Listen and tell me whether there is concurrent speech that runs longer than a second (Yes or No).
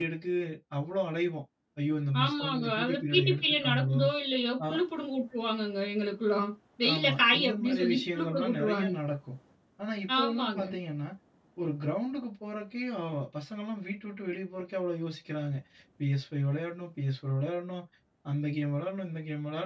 Yes